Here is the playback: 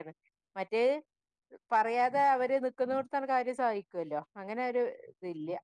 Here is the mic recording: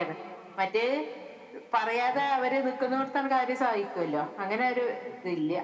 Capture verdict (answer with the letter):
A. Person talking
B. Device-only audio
B